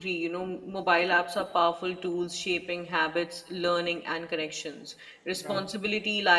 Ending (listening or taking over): listening